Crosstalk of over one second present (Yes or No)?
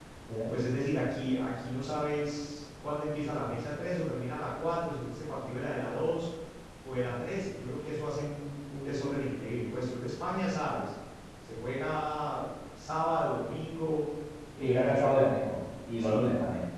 No